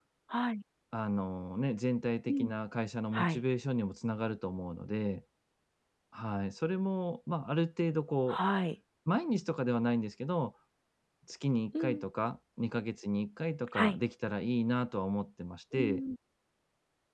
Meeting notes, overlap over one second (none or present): none